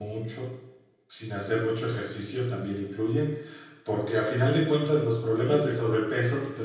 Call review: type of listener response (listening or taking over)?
listening